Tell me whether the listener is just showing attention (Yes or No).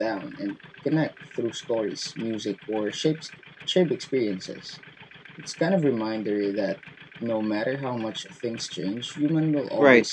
No